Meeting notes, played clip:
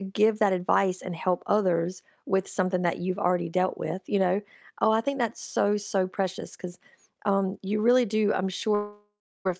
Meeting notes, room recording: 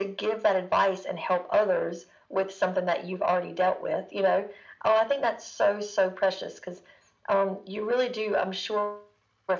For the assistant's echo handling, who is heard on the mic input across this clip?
echo only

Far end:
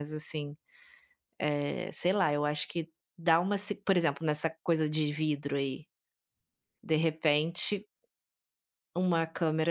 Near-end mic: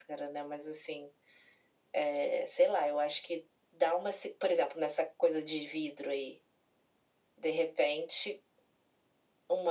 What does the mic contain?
echo only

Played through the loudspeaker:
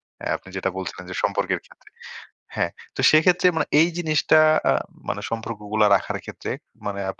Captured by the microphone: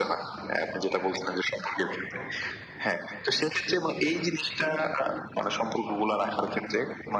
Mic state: echo only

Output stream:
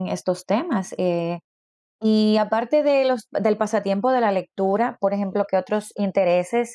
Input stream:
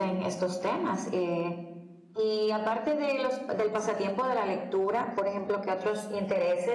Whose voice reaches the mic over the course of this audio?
echo only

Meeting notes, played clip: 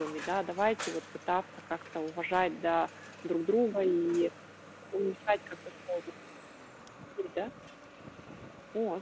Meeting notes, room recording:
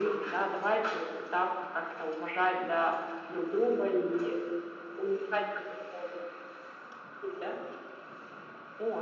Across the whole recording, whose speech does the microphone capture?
echo only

